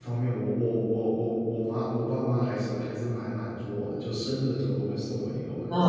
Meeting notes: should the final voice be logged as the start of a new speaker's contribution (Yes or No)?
Yes